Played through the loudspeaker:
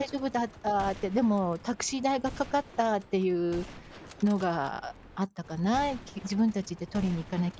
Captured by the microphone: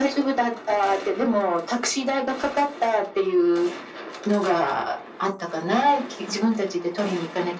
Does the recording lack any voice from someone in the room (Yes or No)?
Yes